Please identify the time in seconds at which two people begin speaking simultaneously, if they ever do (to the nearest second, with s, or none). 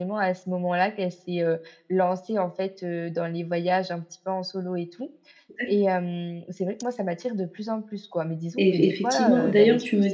9 s